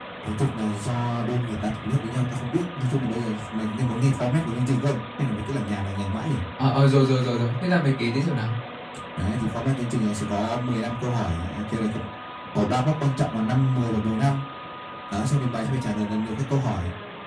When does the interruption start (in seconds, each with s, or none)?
none